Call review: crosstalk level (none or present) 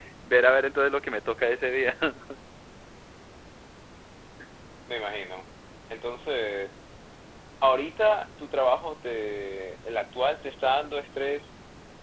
none